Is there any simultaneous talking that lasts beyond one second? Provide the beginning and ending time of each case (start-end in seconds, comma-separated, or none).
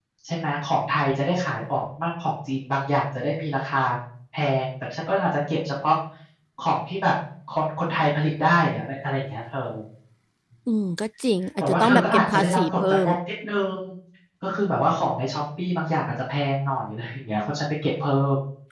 11.6-13.1